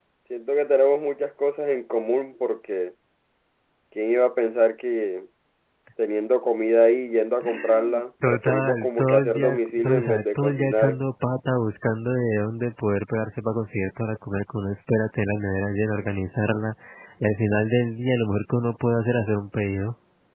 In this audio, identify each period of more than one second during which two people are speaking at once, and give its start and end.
8.3-11.0

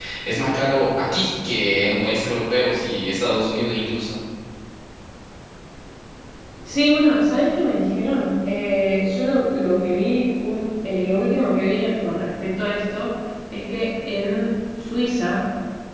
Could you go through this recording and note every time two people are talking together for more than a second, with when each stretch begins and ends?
none

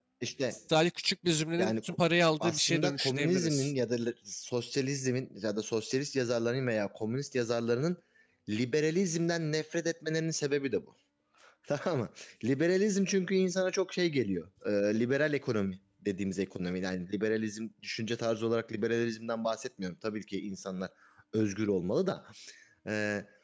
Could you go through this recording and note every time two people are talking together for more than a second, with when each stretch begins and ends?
2.4-3.7

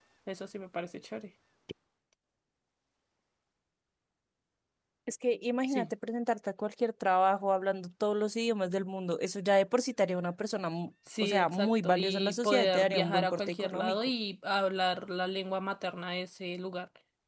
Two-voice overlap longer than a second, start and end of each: 11.2-14.1

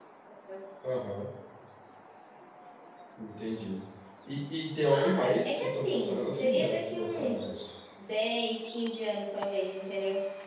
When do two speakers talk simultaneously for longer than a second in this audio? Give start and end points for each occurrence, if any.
4.9-7.7

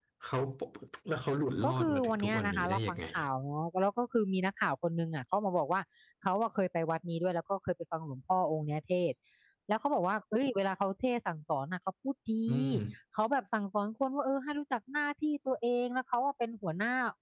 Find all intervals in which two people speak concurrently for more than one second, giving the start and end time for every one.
1.6-3.2

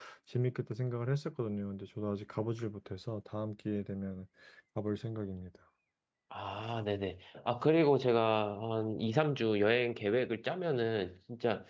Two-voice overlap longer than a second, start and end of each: none

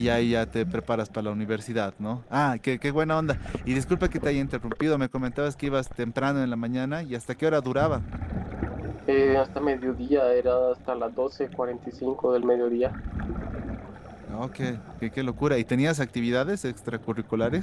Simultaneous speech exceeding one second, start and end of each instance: none

